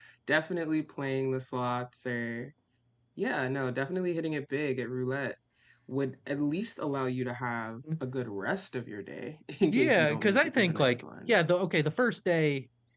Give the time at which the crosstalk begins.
9.7 s

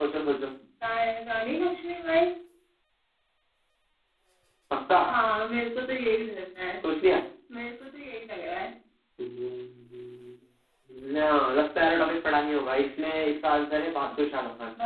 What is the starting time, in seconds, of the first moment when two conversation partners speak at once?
none

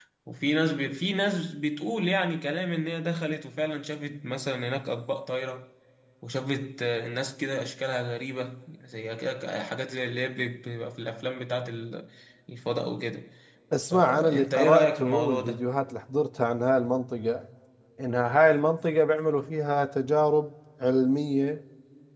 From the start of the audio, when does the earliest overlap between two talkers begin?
13.9 s

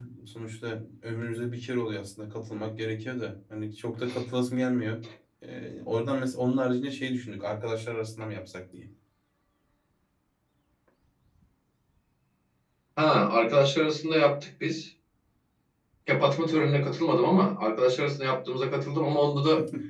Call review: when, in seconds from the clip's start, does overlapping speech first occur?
none

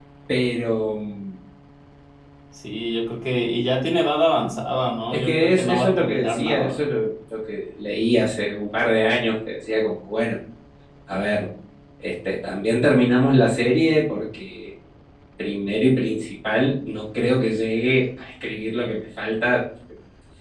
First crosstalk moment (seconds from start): 5.1 s

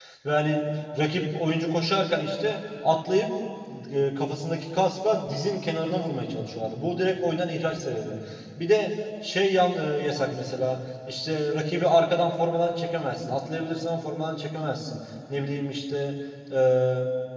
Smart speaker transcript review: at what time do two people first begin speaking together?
none

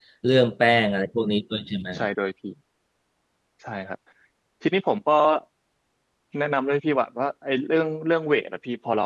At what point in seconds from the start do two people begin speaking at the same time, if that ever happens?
none

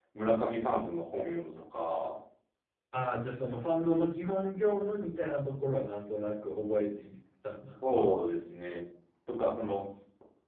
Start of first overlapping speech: none

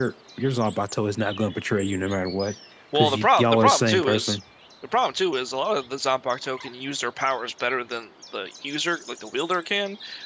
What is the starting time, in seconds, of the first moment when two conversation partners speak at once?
2.9 s

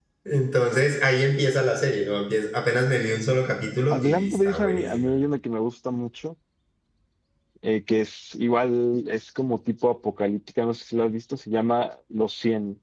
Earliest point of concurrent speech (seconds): 3.9 s

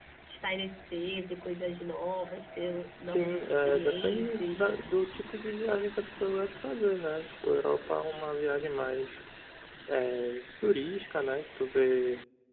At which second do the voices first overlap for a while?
3.1 s

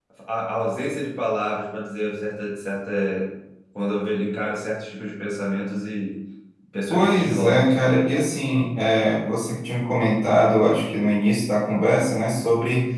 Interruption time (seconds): 6.9 s

